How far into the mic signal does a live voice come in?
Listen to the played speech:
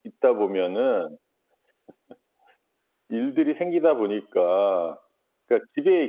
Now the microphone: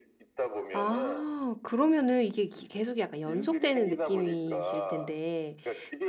0.7 s

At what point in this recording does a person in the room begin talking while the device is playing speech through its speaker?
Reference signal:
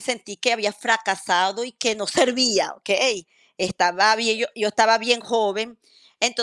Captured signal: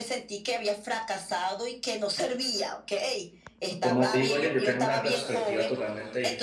3.8 s

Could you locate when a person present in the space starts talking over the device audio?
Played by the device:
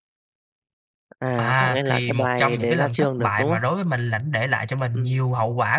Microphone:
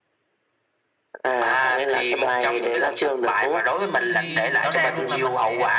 3.7 s

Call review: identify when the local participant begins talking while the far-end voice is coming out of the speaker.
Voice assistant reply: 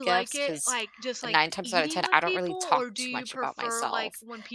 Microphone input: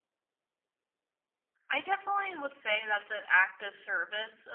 1.7 s

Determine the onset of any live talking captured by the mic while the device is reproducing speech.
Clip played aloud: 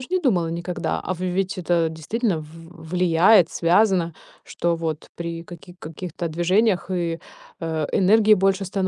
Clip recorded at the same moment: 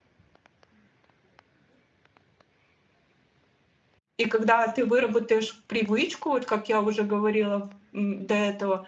4.2 s

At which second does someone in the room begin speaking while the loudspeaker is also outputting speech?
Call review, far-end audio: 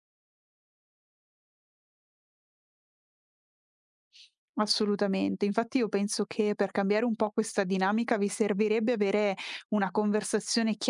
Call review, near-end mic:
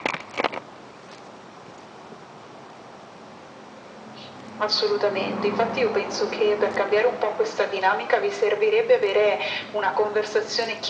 none

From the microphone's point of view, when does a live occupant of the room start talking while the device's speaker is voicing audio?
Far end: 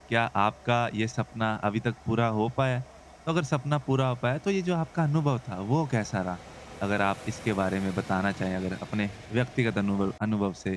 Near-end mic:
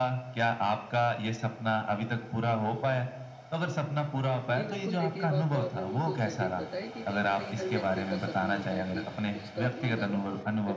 4.5 s

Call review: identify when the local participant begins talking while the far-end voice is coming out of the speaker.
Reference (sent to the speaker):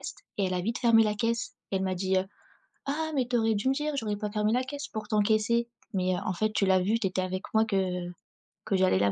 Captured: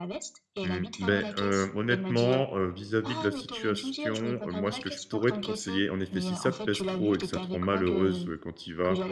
0.6 s

